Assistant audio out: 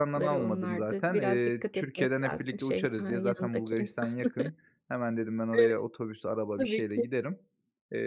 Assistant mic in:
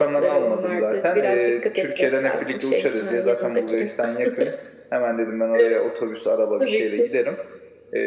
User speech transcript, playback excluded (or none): none